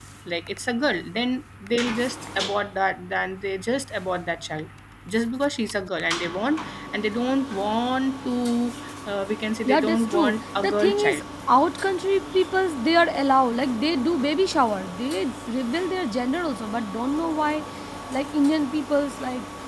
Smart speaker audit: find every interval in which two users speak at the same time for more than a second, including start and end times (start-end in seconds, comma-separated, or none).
9.7-11.2